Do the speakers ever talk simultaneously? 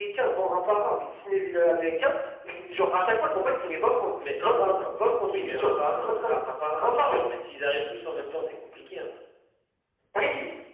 Yes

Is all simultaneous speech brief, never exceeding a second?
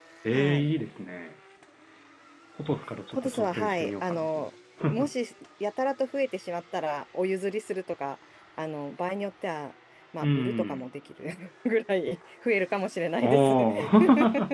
No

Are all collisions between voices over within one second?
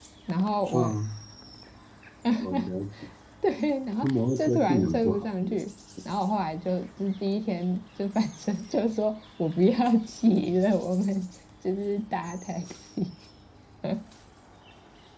No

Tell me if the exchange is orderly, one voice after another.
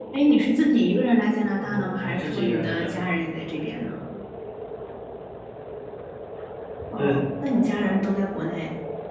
No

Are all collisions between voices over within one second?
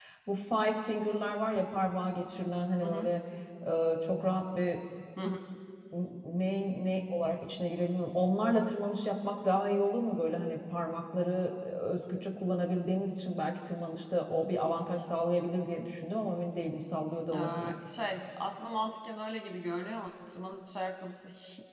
Yes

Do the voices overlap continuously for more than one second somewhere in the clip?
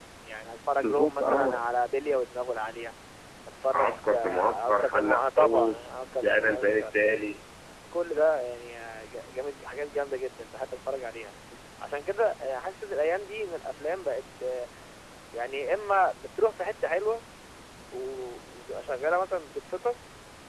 Yes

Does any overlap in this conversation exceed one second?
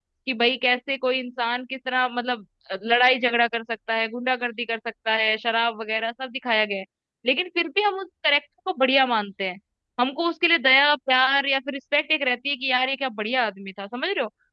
No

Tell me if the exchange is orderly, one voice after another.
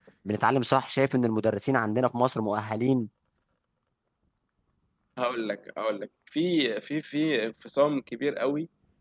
Yes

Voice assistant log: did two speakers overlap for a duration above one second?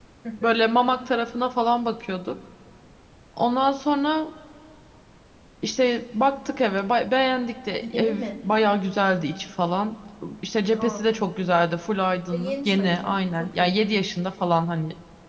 Yes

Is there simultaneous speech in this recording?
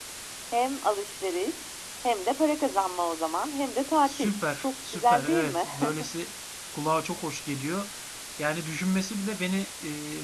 Yes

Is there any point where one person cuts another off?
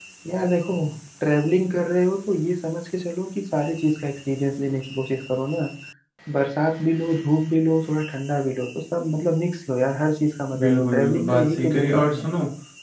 Yes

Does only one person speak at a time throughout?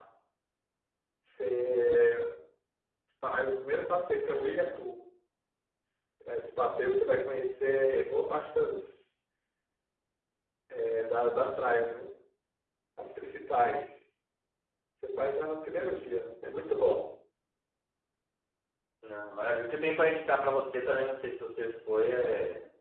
Yes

